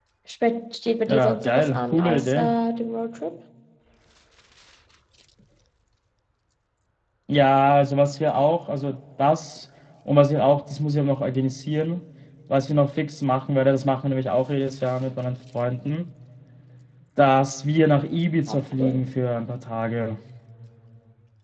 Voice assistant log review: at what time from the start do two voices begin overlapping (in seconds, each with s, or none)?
1.1 s